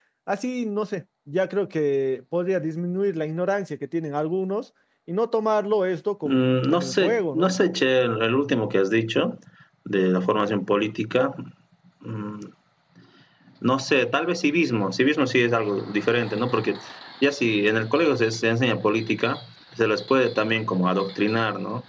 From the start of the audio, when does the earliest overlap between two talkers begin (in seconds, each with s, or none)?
6.2 s